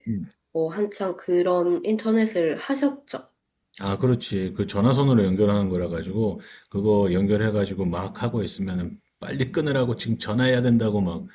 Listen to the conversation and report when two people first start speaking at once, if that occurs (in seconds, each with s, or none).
none